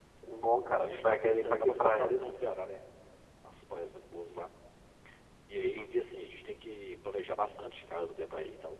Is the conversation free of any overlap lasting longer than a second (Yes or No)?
No